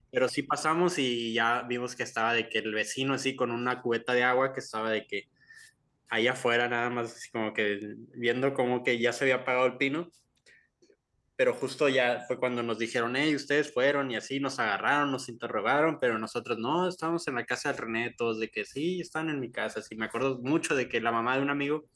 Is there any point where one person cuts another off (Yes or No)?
No